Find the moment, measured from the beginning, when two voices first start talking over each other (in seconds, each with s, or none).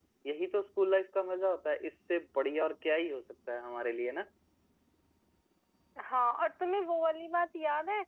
none